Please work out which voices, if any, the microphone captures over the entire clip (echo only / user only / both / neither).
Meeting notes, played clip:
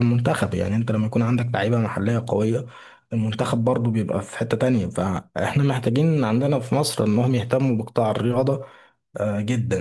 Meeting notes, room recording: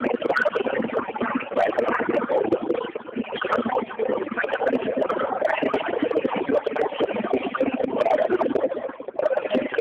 echo only